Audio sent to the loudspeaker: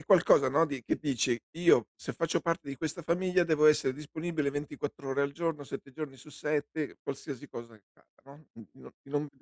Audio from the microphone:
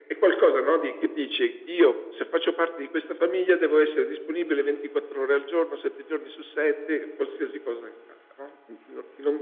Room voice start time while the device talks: none

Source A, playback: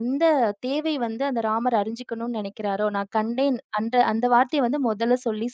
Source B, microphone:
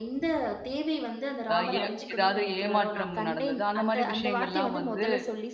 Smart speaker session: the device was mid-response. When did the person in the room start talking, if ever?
1.5 s

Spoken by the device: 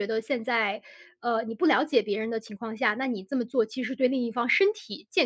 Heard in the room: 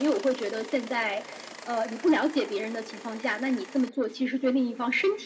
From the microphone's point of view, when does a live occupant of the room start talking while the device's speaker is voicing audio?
none

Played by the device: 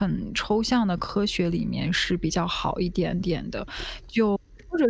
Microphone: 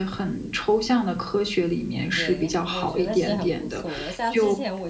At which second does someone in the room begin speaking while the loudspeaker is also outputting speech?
2.1 s

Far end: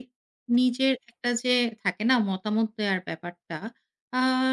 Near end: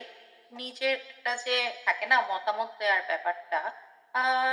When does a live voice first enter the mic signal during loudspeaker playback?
none

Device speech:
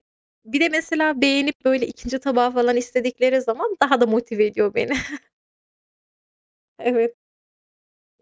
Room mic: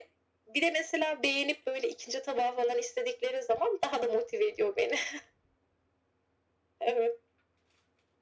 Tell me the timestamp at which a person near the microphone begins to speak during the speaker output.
none

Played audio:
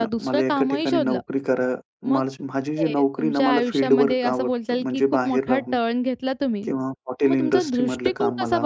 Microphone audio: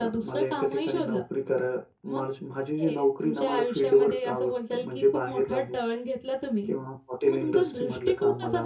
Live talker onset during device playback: none

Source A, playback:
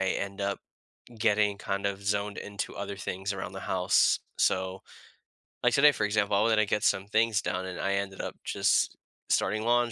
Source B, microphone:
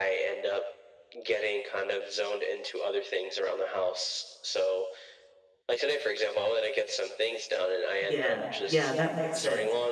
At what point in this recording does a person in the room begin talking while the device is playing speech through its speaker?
8.0 s

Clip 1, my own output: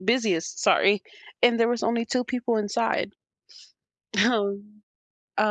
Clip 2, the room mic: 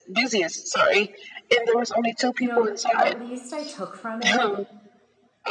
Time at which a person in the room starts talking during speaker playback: 2.4 s

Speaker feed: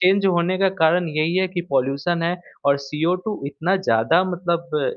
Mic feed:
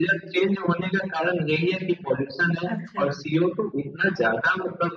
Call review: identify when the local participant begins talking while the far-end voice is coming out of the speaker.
2.7 s

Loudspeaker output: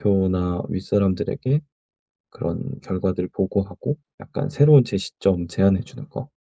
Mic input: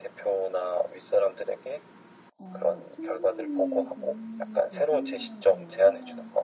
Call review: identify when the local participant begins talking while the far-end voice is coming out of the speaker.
2.4 s

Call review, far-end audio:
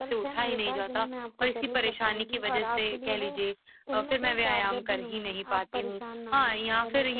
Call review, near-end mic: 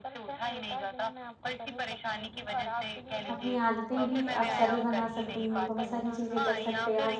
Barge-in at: 3.3 s

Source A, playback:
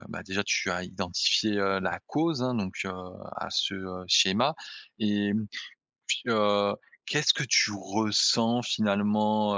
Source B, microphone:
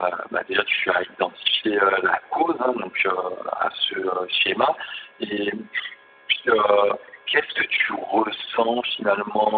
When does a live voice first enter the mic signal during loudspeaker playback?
none

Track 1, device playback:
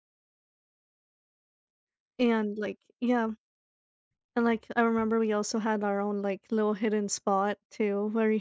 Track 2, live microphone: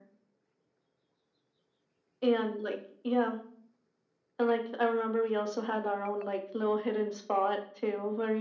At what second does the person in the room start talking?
none

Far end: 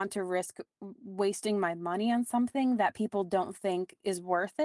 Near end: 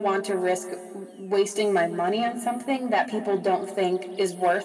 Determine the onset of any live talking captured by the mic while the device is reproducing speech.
none

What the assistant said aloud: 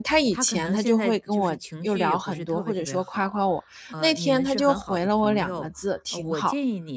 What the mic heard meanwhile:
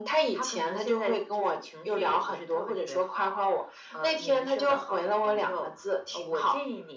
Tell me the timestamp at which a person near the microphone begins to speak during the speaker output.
none

